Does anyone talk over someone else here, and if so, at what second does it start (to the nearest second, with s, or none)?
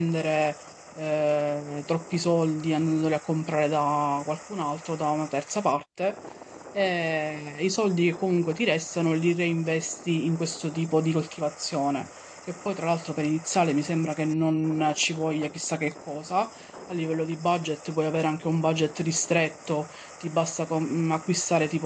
none